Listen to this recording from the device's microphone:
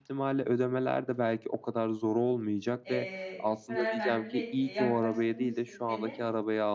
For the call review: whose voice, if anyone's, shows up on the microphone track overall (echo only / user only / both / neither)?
both